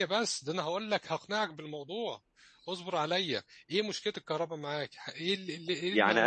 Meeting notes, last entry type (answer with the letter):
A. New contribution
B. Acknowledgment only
A